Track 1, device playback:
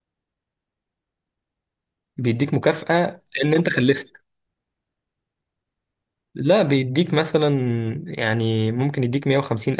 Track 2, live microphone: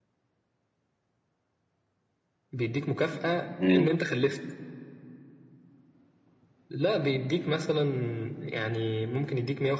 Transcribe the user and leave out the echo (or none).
امم